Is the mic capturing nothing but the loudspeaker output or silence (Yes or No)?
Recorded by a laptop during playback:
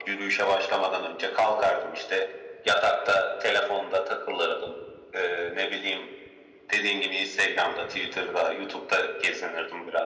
Yes